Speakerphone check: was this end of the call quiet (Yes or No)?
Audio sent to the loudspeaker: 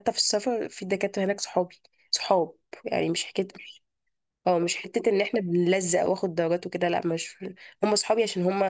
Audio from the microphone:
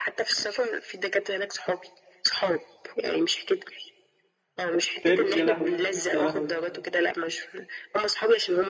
No